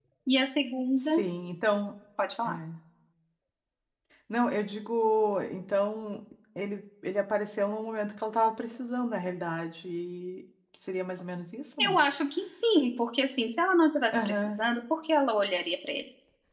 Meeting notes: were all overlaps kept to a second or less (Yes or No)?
Yes